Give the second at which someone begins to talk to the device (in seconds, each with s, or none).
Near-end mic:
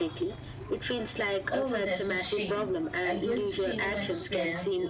1.5 s